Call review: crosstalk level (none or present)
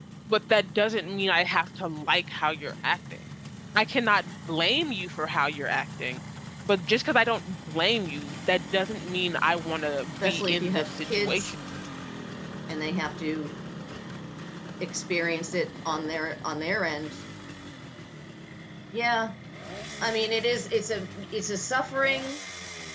present